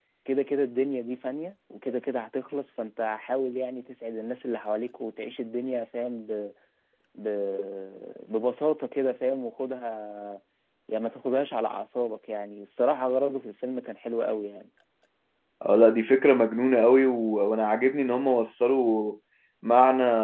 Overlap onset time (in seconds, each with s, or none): none